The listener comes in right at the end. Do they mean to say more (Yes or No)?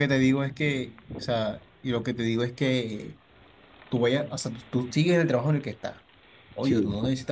No